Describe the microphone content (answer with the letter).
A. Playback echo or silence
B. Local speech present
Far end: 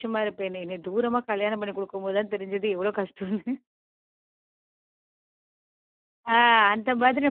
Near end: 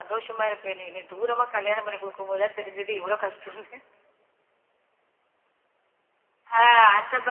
A